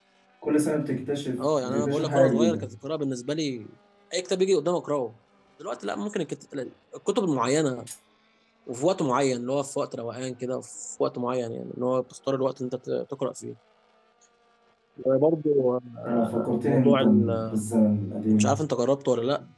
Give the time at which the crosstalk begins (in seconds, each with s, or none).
1.4 s